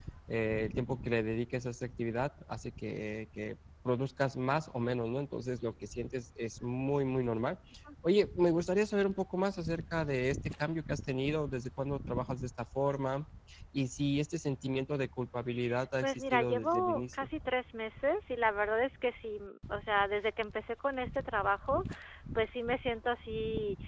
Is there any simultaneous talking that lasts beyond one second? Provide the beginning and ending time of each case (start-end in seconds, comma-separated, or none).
16.0-17.3